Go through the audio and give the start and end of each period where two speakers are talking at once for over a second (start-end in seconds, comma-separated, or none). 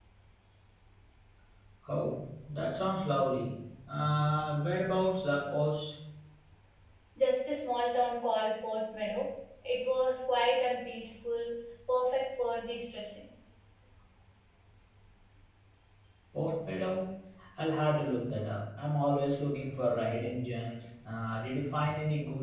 none